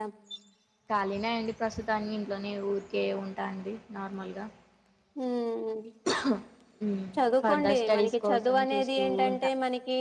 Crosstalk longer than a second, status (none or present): present